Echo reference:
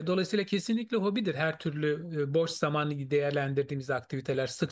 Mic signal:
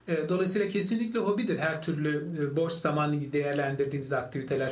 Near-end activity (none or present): none